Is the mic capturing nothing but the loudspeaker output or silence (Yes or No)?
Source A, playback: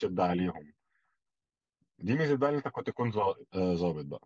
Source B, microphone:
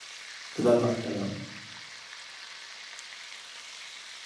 No